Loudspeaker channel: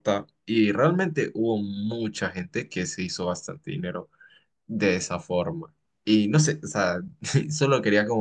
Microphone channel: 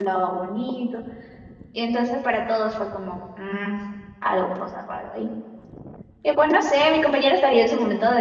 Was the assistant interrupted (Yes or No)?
Yes